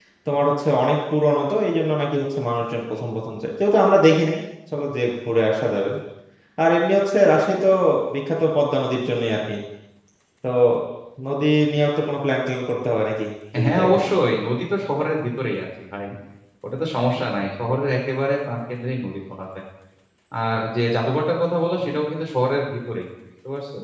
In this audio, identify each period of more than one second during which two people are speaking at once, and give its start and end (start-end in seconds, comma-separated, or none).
none